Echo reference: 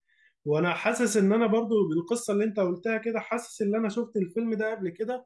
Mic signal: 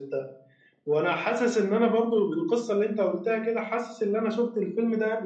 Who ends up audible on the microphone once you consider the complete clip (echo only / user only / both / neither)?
echo only